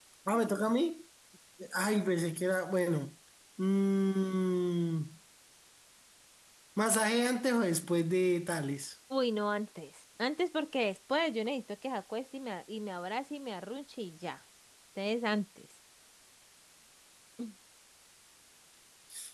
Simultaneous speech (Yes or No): No